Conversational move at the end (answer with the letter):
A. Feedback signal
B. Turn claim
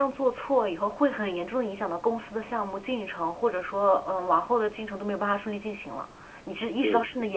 A